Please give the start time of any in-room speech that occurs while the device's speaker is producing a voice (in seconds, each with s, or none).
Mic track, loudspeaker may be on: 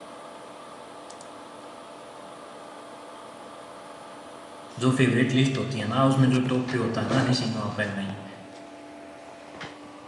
4.8 s